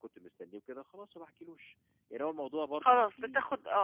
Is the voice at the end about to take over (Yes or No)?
Yes